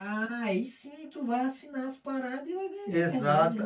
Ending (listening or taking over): taking over